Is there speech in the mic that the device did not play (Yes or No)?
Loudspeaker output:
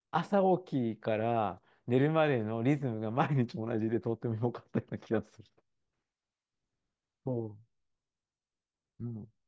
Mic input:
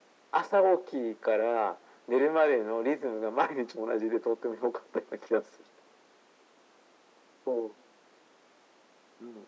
No